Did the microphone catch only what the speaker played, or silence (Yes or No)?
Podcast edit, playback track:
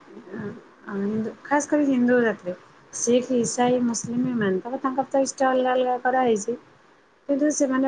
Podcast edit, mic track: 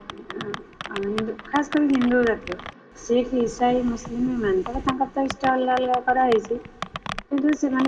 Yes